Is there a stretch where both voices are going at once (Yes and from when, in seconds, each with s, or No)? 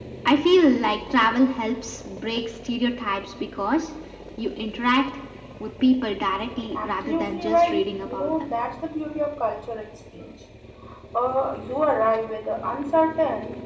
Yes, from 6.8 s